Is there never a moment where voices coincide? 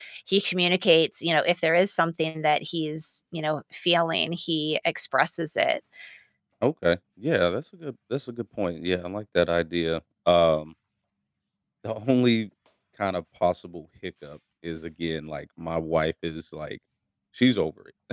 Yes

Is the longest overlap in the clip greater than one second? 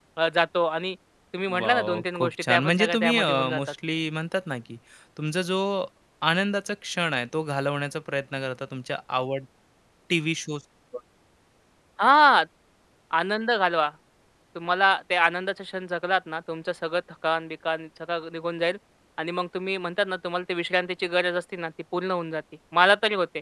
Yes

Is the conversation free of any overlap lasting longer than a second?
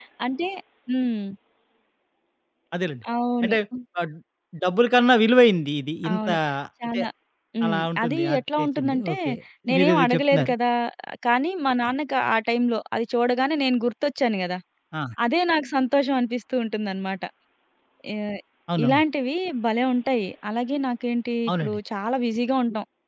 No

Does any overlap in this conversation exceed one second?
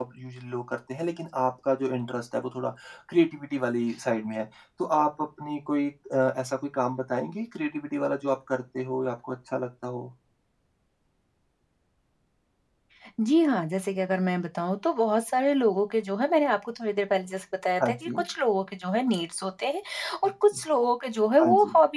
No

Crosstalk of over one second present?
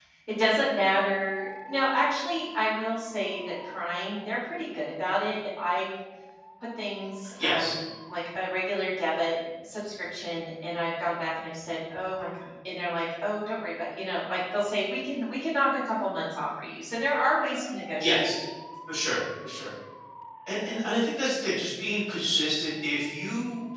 No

